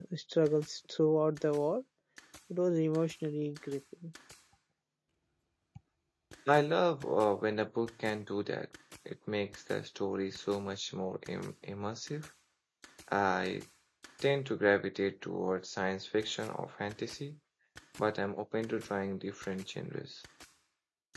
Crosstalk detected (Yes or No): No